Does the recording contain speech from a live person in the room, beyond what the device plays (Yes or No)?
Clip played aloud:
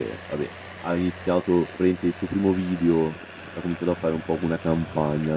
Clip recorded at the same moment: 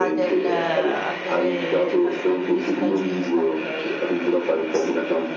Yes